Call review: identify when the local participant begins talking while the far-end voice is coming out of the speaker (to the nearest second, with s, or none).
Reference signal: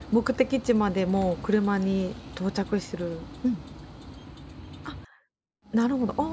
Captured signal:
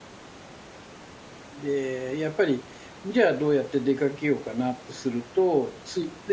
2 s